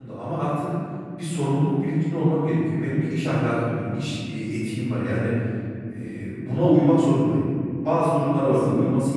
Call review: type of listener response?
listening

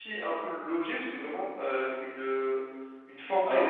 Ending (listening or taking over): listening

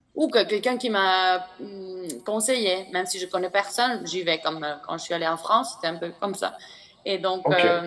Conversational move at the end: listening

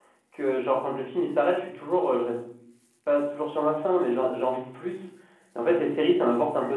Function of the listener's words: listening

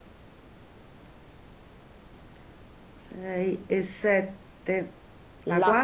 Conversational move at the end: taking over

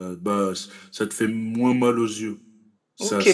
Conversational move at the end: taking over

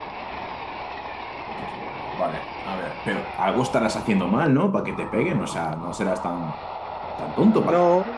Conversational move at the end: taking over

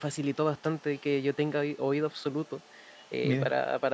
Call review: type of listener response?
listening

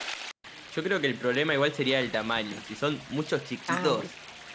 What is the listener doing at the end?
listening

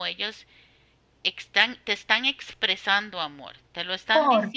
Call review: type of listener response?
listening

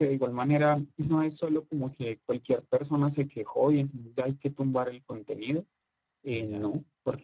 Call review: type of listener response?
listening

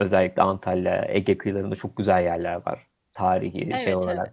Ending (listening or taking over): taking over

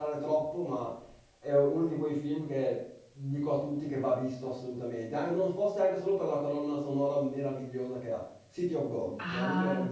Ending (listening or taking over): taking over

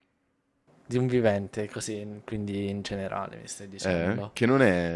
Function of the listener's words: taking over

